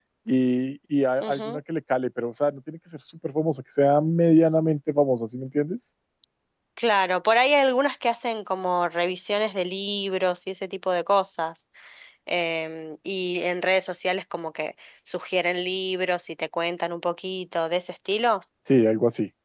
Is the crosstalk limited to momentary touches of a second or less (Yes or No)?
Yes